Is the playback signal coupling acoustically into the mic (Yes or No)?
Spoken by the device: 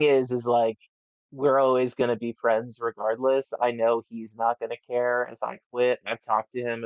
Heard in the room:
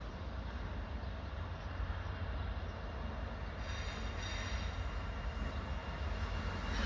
No